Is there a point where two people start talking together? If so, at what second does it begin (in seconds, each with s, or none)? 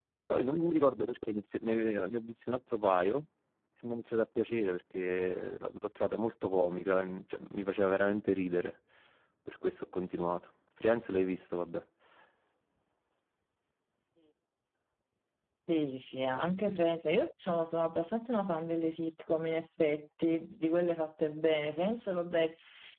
none